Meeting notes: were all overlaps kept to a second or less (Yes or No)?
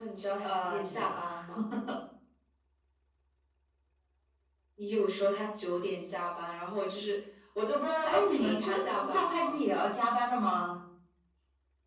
No